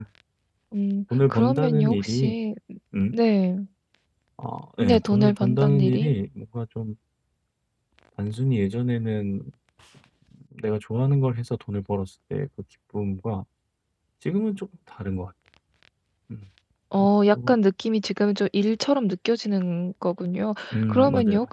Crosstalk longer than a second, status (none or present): present